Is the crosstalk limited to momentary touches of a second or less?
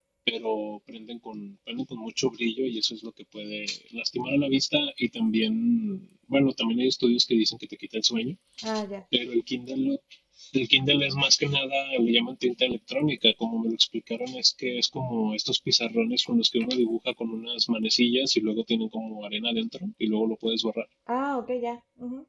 Yes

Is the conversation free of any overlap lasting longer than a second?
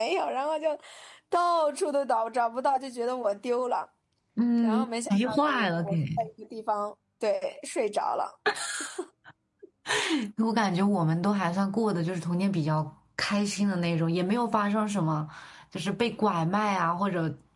No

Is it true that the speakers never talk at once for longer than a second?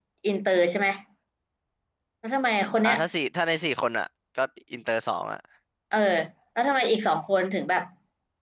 Yes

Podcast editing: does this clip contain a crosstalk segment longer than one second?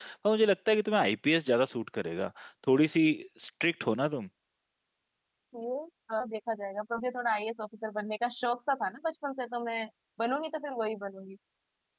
No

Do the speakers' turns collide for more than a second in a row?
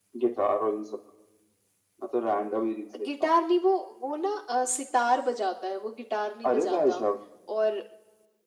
No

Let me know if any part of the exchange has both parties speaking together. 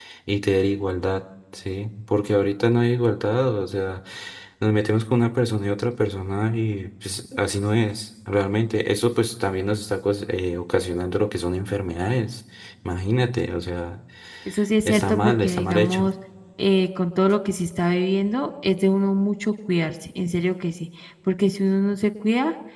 Yes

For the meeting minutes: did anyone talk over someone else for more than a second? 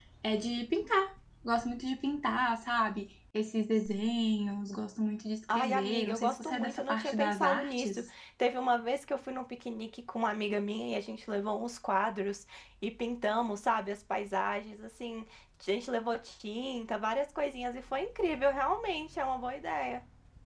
Yes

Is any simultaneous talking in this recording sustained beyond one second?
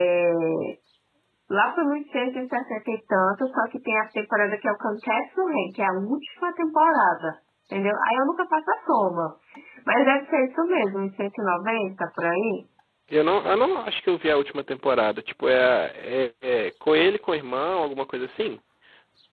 No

